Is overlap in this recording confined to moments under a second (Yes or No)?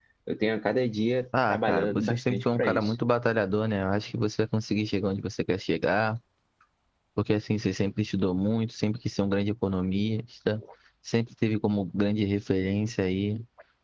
No